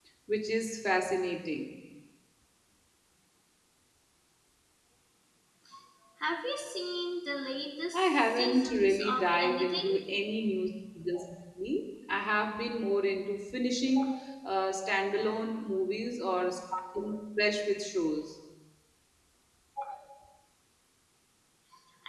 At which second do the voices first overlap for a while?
7.9 s

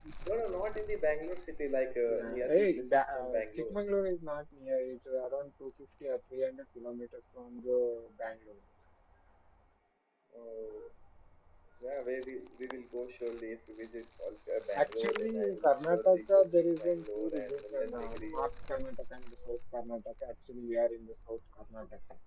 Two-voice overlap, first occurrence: 2.1 s

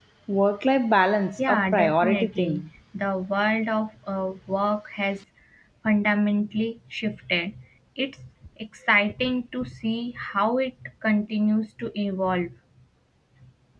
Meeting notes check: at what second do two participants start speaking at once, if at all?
1.4 s

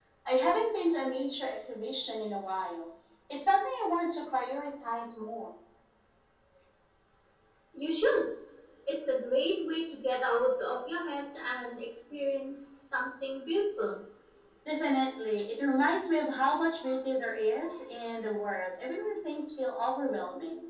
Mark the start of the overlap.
none

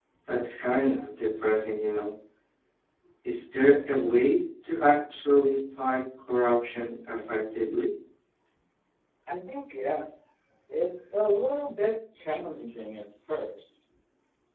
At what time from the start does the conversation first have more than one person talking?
none

